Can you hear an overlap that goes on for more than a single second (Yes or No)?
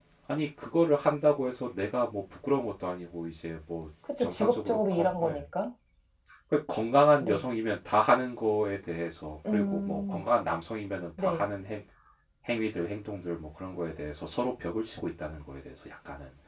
Yes